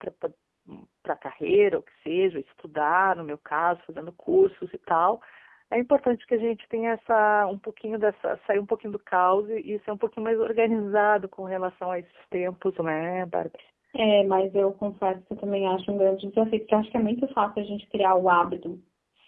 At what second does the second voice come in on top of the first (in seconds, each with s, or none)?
none